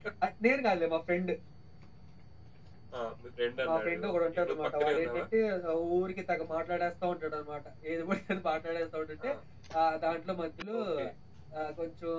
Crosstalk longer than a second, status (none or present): present